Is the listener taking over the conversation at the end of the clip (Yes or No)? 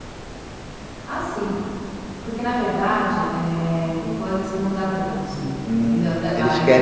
Yes